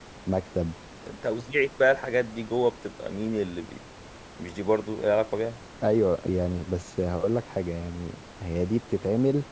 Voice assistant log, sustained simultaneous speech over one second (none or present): none